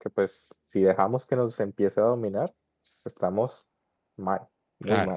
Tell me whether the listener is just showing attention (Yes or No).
No